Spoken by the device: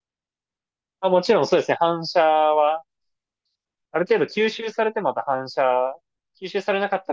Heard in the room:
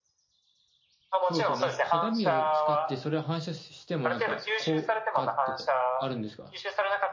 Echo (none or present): present